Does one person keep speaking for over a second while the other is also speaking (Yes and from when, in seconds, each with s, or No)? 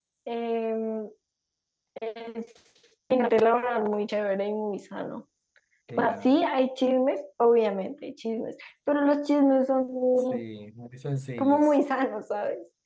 No